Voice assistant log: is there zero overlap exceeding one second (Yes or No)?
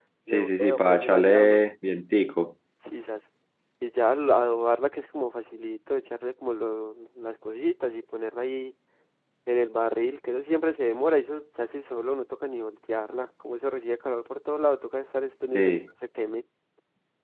No